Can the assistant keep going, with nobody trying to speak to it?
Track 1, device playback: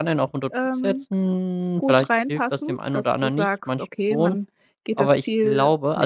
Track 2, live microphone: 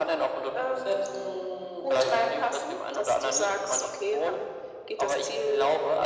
Yes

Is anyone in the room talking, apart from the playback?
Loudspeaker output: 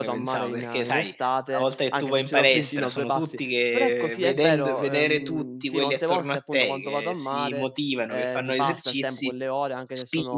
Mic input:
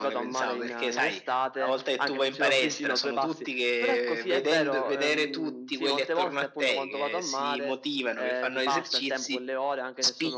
No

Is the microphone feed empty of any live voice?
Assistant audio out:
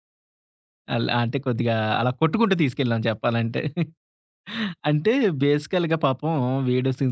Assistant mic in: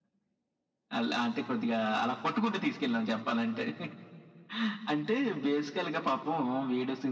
Yes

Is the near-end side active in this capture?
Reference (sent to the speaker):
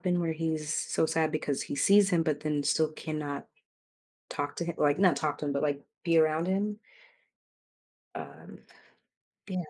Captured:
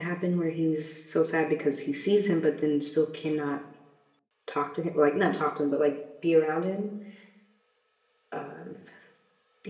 No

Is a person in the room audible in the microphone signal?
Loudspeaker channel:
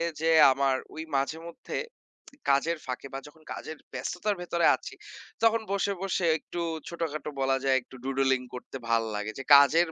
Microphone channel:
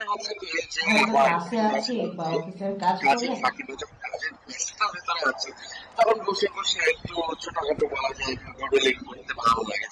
Yes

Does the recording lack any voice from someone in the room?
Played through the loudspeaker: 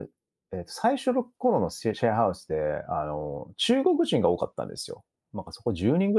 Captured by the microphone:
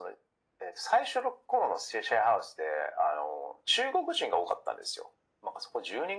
Yes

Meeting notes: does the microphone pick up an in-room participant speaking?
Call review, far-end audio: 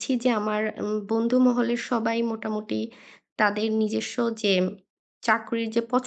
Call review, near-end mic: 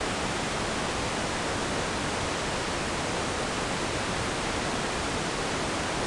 No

